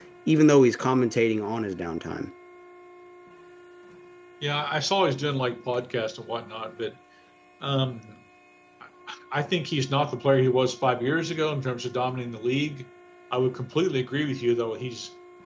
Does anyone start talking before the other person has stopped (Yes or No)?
No